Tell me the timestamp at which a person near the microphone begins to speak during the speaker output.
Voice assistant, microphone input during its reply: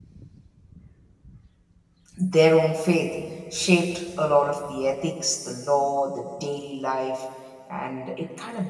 2.2 s

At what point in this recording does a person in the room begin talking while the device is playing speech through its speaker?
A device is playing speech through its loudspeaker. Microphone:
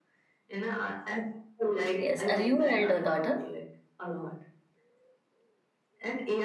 1.9 s

